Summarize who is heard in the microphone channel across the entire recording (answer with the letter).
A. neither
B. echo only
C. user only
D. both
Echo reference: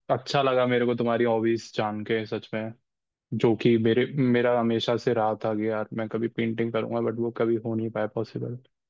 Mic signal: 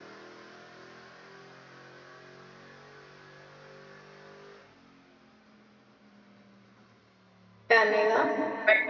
C